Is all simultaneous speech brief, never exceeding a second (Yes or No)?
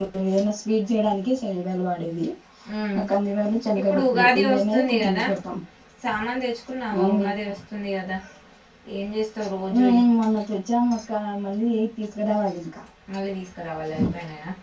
No